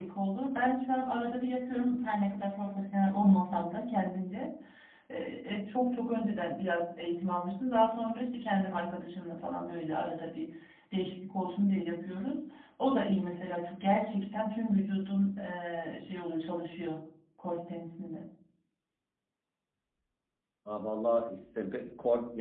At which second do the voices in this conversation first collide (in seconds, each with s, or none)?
none